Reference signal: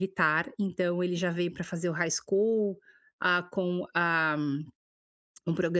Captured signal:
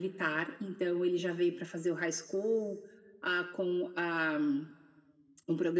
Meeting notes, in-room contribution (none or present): none